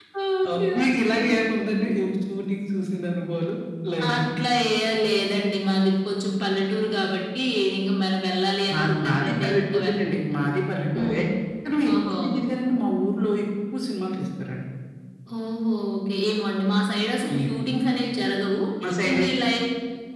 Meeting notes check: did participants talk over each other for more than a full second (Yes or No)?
Yes